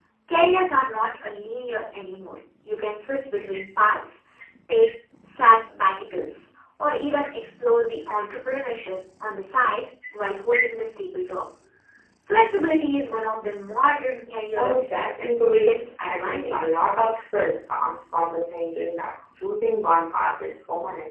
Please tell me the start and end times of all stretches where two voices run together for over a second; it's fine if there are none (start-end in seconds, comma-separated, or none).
15.5-16.9